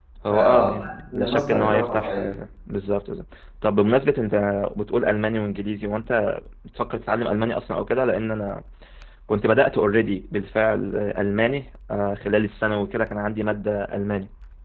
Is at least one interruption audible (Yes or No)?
Yes